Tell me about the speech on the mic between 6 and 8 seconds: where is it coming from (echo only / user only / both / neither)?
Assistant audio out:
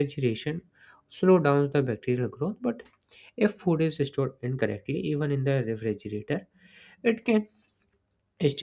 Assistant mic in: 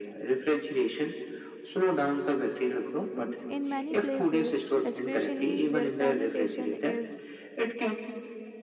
both